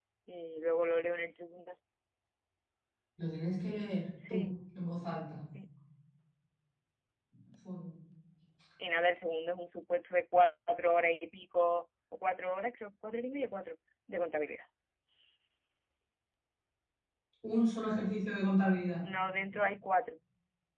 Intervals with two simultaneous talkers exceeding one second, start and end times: none

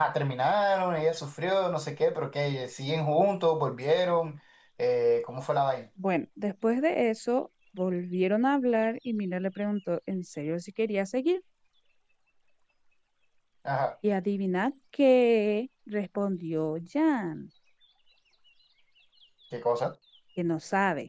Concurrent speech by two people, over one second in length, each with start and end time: none

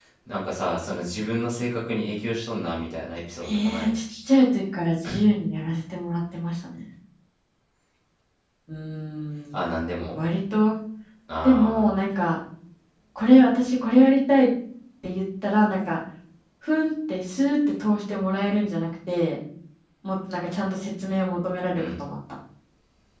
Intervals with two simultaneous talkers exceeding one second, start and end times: none

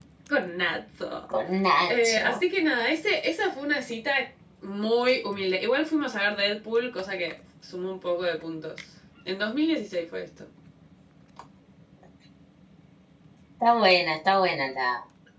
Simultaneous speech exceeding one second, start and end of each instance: none

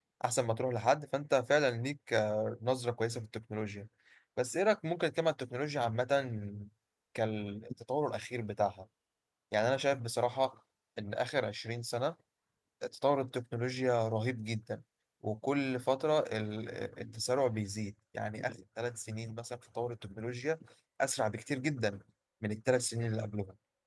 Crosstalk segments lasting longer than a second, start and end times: none

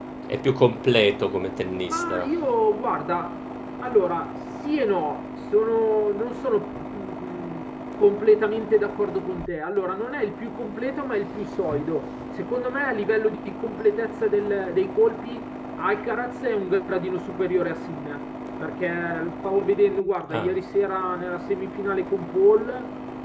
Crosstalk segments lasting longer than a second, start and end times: none

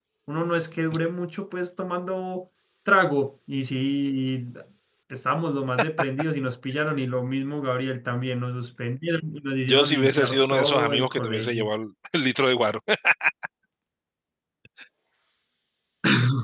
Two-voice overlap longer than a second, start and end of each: 9.7-11.7

